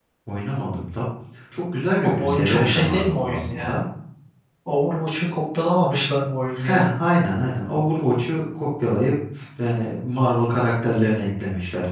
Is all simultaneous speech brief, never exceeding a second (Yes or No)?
No